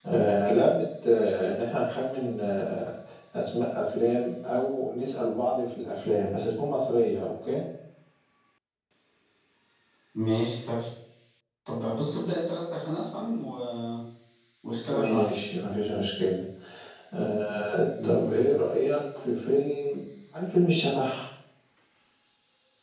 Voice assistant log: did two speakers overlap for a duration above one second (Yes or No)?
No